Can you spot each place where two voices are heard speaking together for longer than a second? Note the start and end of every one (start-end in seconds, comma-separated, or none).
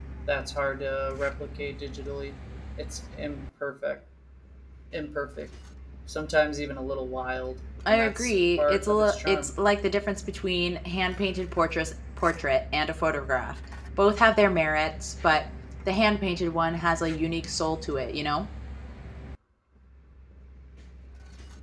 7.9-9.5